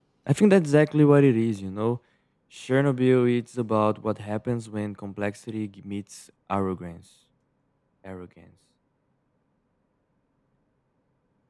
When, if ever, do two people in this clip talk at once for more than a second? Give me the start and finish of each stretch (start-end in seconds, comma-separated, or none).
none